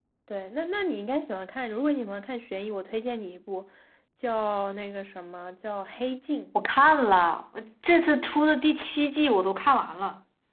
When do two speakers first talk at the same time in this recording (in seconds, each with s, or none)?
none